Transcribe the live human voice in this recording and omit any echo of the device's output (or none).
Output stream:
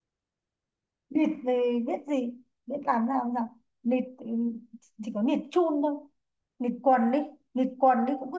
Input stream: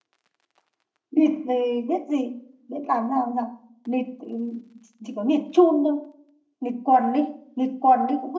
none